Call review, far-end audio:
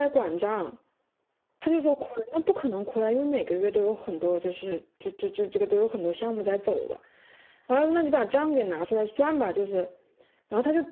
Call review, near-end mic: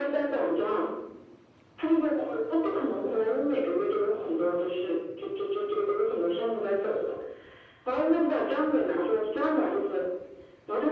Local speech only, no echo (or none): none